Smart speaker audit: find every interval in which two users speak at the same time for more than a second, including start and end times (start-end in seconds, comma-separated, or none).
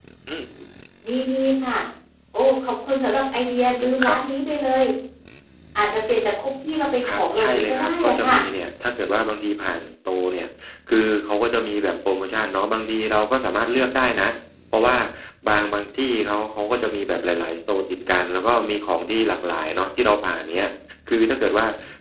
7.1-8.3